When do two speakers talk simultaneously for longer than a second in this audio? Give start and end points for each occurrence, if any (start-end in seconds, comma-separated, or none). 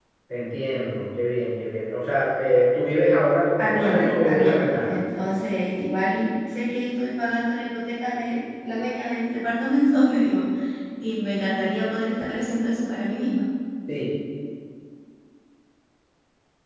3.6-5.0